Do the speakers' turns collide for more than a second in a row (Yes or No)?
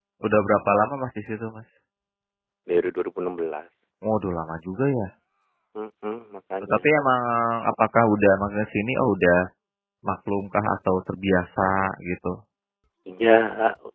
No